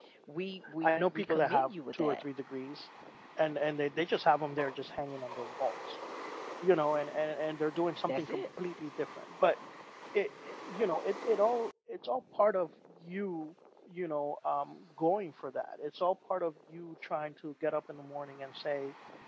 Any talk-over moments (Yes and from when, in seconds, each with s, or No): Yes, from 0.8 s